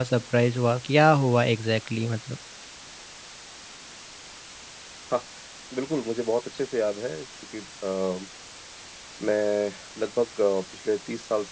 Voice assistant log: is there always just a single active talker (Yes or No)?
Yes